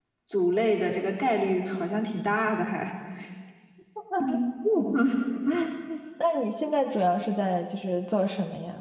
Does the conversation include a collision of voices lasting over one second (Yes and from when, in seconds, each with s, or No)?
No